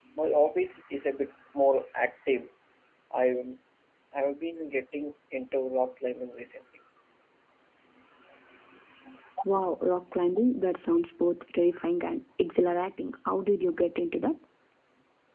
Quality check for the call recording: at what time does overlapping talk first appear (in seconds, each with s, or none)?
none